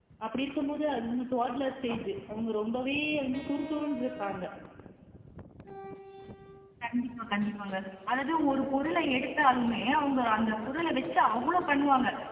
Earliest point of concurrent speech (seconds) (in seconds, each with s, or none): none